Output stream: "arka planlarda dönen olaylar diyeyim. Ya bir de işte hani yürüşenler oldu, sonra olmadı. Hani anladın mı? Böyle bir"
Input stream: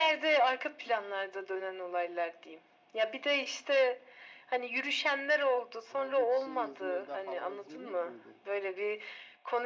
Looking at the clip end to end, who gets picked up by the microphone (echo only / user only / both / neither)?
both